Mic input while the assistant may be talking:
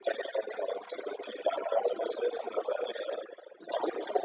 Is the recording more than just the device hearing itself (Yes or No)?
No